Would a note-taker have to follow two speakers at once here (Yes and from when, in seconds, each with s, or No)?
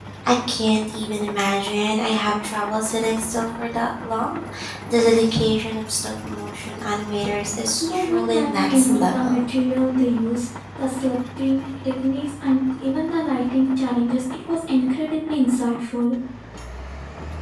Yes, from 7.8 s